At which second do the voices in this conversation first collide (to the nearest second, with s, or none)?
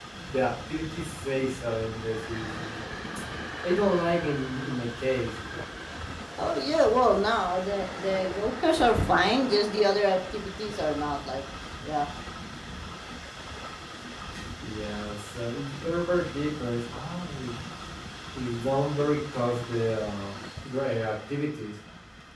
none